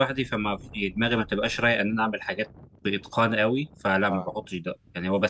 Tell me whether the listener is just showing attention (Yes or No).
Yes